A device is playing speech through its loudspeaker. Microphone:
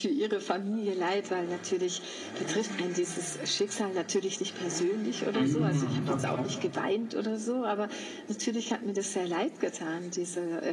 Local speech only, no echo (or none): Mhm, okay.